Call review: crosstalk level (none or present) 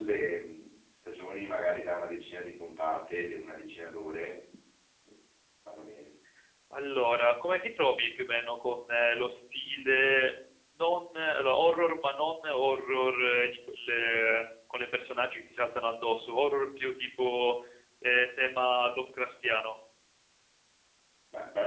none